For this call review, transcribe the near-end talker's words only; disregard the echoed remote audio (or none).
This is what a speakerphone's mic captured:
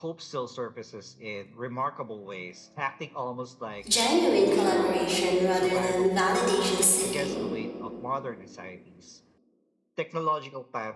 genuine collaboration rather than validation seeking.